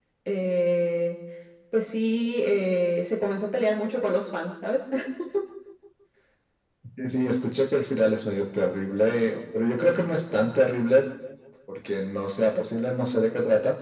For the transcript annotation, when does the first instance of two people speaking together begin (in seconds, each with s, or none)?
none